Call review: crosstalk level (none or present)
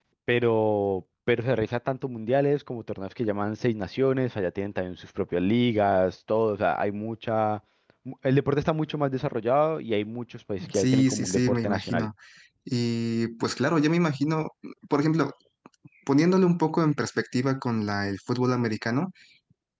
present